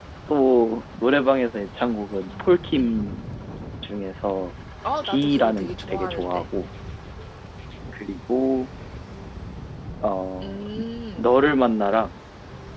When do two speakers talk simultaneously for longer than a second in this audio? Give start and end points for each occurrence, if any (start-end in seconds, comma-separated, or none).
5.0-6.4